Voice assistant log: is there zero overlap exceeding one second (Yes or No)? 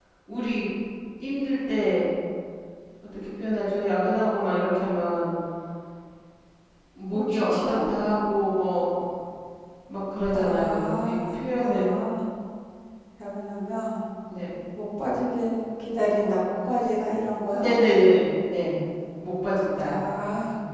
No